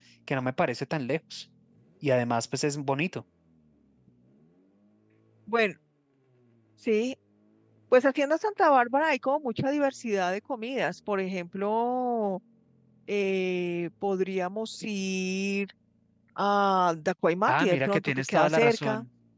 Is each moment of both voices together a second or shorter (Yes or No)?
No